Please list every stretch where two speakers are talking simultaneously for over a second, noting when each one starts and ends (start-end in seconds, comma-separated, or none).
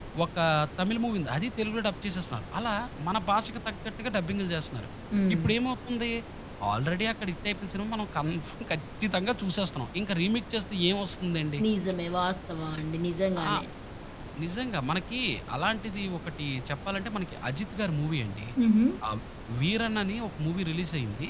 none